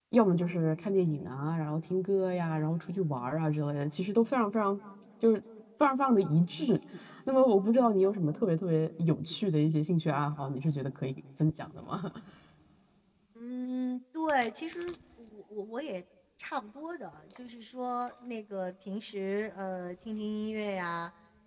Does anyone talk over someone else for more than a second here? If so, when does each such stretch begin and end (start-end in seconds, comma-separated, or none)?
none